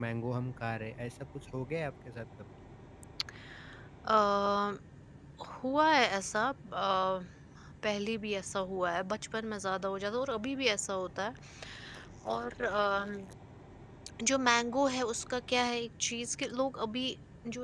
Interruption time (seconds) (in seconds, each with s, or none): none